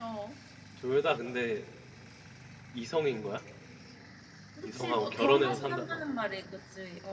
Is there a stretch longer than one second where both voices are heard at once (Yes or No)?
Yes